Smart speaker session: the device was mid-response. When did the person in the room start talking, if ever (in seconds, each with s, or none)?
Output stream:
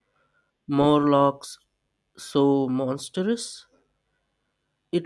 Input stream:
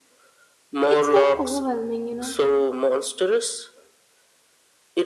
0.9 s